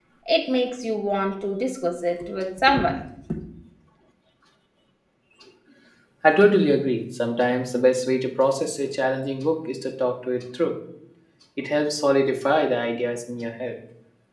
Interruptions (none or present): none